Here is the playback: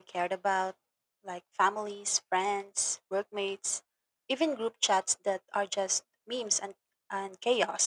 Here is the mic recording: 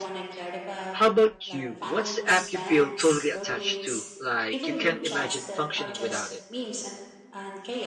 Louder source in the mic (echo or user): user